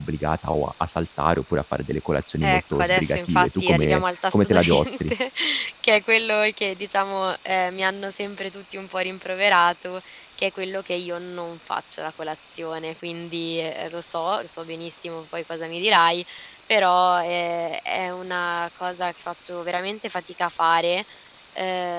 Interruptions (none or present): present